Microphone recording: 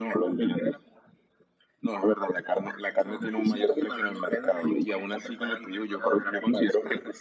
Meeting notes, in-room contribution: none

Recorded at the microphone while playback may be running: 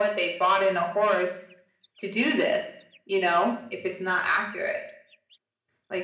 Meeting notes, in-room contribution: none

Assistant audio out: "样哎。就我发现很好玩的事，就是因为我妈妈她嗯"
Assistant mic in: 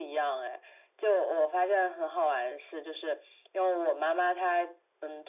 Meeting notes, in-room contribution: none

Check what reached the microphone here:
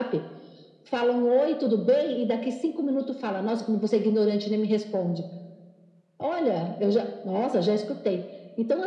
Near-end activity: none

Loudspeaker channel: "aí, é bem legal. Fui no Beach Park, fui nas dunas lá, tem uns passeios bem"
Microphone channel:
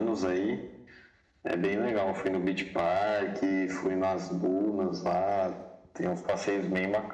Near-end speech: none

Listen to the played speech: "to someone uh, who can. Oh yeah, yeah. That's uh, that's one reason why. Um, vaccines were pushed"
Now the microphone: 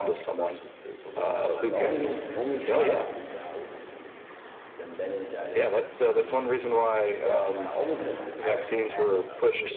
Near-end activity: present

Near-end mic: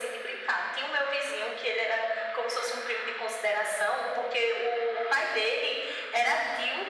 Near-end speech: none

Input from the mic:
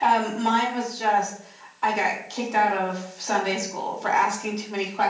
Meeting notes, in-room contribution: none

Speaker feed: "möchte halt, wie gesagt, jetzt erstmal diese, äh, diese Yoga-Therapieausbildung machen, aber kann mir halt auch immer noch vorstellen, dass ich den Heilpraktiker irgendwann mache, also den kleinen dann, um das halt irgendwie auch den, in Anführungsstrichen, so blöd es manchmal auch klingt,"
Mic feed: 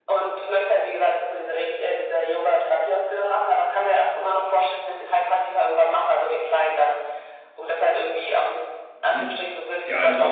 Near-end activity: present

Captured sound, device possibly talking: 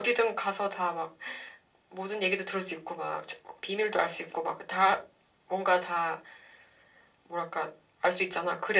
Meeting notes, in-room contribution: none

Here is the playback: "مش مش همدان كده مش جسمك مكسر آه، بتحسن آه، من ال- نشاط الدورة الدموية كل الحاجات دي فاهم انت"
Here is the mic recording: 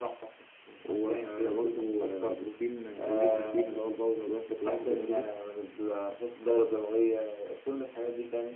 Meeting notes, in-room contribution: present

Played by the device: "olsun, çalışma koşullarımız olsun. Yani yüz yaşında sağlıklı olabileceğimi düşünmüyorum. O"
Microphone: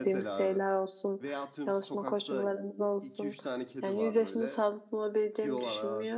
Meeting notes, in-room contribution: present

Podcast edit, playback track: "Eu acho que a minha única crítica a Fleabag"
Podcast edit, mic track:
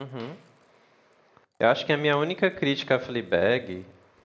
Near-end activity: none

